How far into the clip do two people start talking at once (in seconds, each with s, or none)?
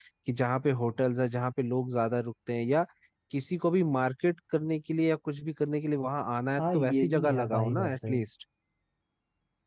6.6 s